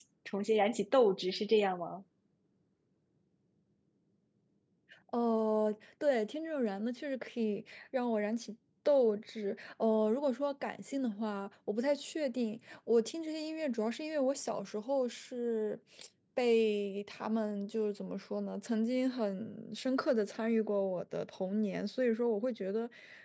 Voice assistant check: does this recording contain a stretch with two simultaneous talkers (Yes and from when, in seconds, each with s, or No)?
No